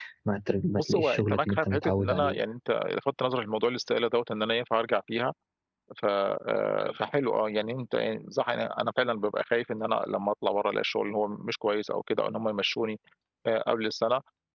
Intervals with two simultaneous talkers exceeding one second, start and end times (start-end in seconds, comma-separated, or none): 0.8-2.4